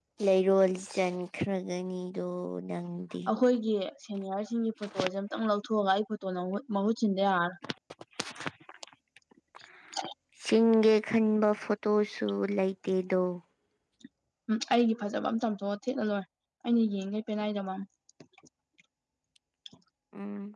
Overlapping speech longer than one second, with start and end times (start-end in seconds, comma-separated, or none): none